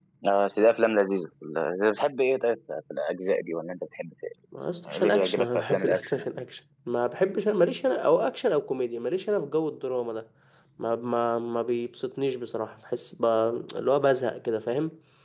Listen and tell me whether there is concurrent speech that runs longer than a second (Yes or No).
Yes